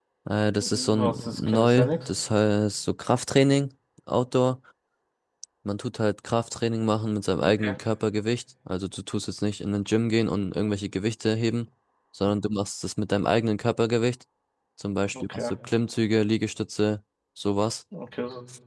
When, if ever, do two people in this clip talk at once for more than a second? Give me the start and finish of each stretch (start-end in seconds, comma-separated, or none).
0.6-2.1